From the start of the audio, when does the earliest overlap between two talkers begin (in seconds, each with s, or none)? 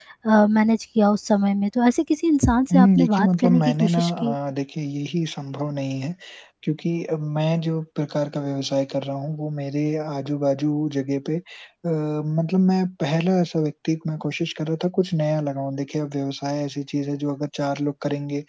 2.7 s